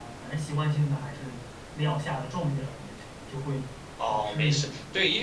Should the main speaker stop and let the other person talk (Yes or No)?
Yes